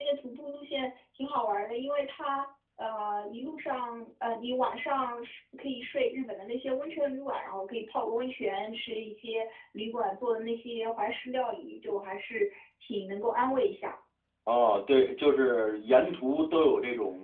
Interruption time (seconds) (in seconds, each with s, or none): none